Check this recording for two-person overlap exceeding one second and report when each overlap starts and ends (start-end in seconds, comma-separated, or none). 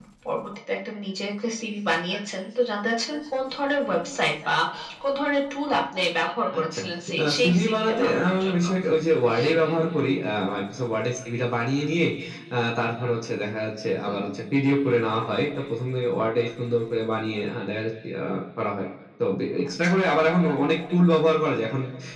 7.2-8.6